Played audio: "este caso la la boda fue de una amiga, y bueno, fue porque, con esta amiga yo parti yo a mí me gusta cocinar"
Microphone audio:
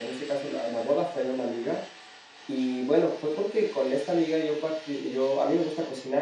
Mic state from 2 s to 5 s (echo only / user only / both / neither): echo only